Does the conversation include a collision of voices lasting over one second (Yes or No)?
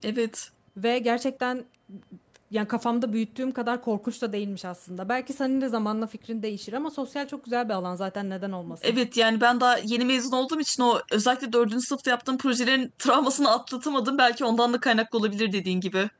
No